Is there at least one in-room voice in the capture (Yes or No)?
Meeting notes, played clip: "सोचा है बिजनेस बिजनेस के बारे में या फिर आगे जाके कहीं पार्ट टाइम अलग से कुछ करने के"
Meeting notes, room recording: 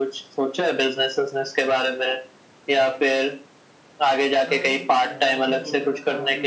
Yes